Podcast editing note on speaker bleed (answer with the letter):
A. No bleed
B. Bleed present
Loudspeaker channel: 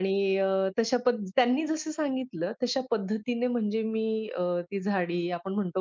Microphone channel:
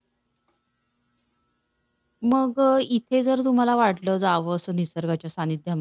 A